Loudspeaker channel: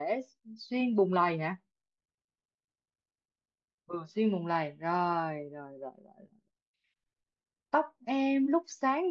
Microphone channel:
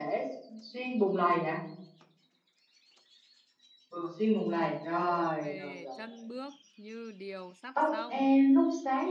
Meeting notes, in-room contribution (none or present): present